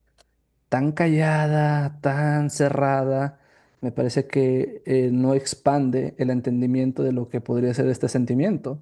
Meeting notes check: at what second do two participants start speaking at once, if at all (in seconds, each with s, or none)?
none